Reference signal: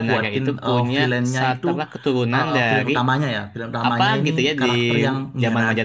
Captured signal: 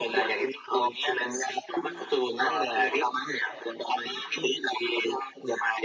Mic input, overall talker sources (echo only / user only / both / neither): echo only